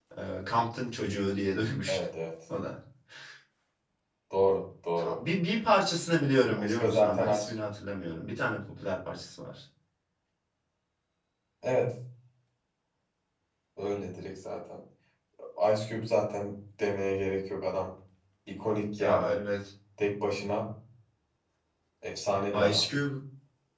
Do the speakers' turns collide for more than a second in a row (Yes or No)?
Yes